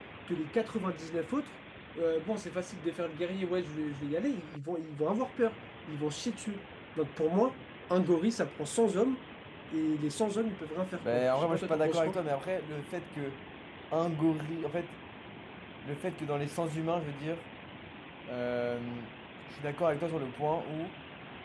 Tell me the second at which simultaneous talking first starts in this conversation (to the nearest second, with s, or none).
11 s